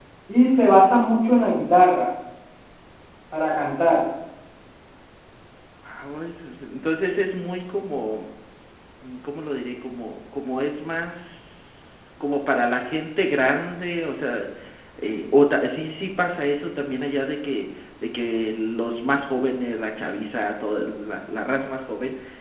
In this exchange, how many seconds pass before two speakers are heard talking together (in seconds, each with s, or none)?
none